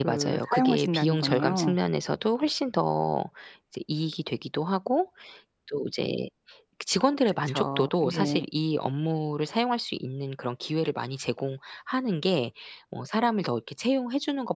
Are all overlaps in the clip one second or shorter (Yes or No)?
No